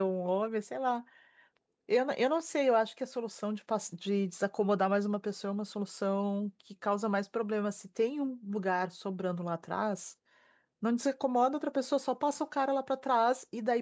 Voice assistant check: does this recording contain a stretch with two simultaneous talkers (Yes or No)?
No